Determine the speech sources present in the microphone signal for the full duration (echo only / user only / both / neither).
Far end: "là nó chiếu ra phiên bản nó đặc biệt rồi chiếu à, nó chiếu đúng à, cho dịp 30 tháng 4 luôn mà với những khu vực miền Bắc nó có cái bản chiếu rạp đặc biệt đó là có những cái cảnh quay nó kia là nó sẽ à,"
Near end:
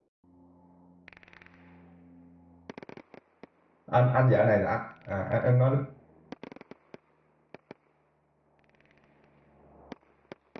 user only